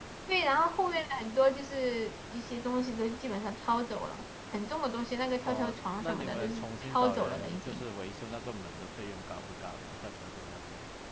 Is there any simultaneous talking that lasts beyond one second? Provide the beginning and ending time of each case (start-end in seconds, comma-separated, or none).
5.5-7.9